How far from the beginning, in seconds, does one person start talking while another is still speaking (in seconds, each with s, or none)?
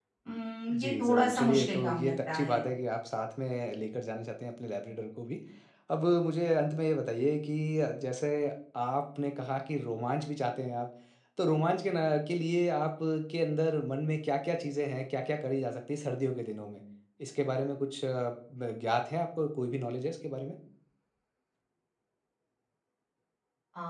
0.7 s